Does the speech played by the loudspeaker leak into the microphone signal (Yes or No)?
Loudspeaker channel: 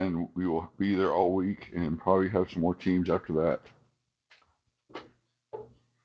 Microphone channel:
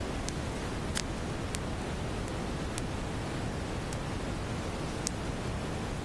No